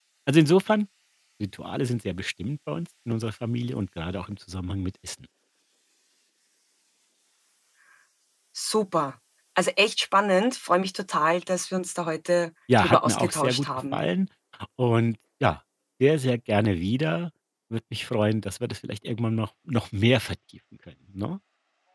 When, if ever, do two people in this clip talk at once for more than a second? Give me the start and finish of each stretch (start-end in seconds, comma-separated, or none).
12.8-14.0